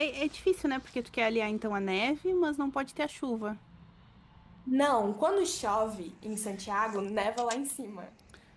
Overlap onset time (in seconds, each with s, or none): none